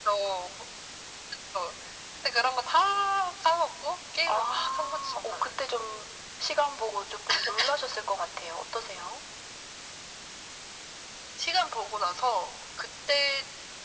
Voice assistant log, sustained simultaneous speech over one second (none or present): present